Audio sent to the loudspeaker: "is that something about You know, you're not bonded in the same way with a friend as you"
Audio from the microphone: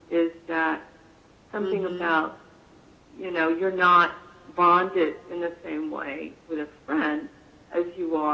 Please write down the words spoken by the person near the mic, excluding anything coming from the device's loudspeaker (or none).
Mhm,